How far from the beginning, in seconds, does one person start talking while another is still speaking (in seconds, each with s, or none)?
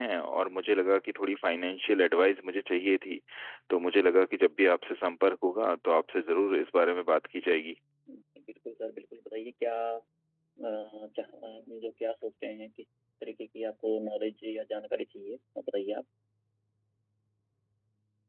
none